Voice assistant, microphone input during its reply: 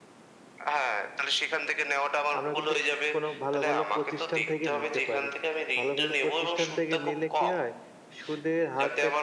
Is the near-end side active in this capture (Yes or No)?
Yes